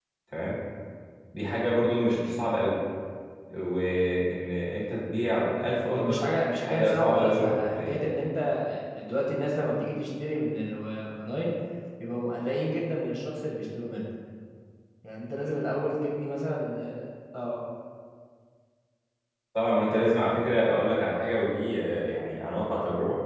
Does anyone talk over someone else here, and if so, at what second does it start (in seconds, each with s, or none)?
5.8 s